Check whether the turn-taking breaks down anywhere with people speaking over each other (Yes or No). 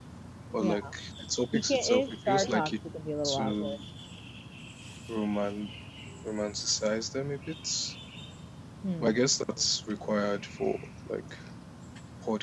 Yes